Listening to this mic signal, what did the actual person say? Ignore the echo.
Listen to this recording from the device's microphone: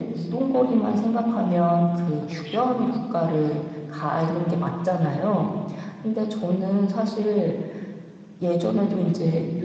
음 그러시군요.

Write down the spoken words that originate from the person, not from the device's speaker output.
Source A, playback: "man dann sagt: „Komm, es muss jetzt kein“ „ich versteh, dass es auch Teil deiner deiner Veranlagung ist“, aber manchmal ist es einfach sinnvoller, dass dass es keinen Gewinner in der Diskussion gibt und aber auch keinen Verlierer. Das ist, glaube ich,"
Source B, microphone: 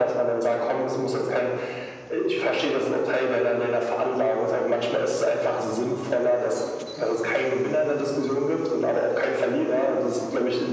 none

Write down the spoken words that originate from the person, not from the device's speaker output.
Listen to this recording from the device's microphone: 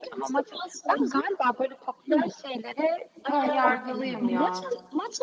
Ön yargılıyım ya.

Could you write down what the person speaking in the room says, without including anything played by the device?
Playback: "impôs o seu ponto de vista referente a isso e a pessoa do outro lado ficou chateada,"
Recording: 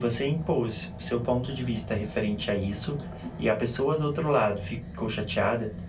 none

